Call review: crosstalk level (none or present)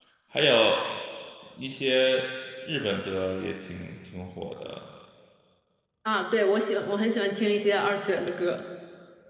none